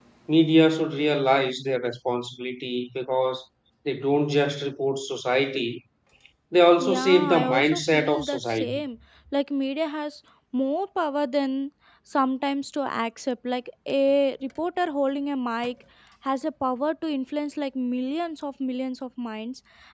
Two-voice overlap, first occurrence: 7 s

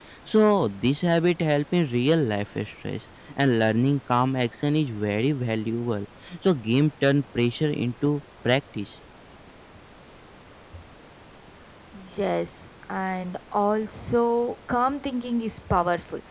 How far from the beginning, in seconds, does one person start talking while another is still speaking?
none

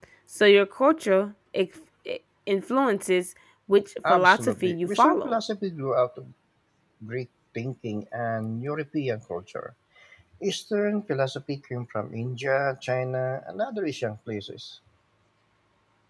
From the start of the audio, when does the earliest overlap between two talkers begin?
4 s

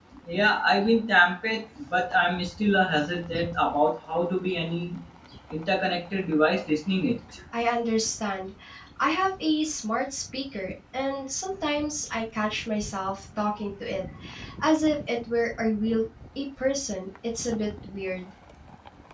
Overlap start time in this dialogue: none

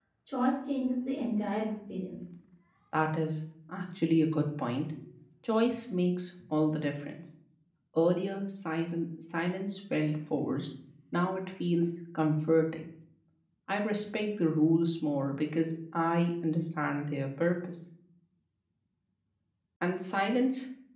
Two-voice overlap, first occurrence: none

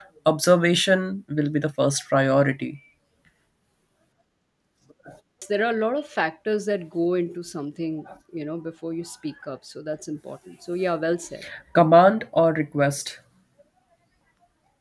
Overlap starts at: none

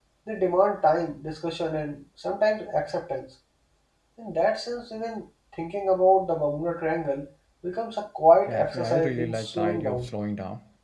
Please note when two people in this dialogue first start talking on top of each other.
8 s

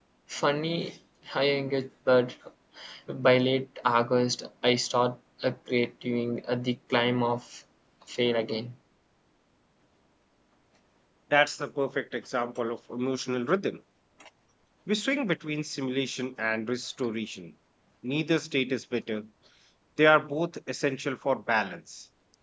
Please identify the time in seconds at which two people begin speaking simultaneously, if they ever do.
none

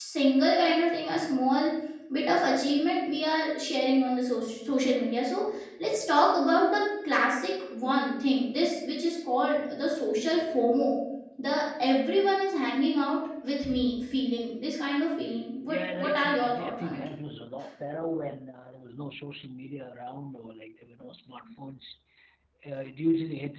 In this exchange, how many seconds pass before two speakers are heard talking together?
16 s

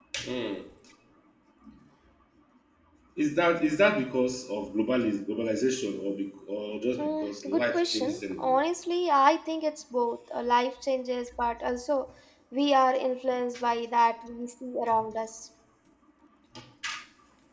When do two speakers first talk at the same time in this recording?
7 s

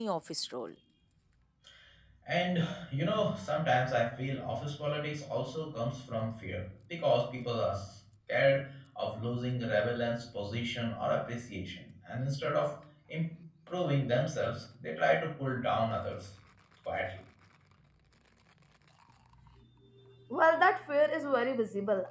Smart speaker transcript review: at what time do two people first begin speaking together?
none

